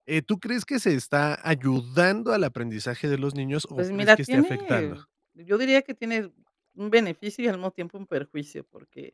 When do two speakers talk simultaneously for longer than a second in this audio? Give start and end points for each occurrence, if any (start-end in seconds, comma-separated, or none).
3.8-5.0